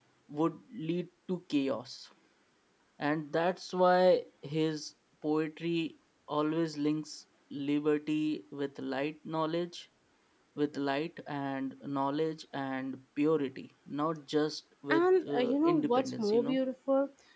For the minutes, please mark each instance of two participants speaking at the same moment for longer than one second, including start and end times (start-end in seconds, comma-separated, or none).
14.9-16.6